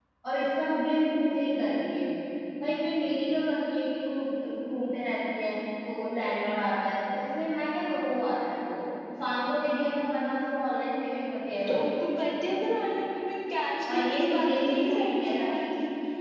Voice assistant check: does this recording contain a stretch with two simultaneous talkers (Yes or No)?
Yes